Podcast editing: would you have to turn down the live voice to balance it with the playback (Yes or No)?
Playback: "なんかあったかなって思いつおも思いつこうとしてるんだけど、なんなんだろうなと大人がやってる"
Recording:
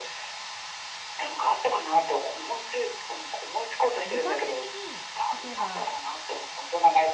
No